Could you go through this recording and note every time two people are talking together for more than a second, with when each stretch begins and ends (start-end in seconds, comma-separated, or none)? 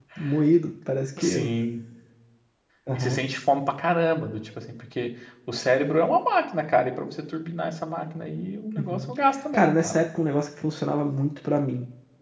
none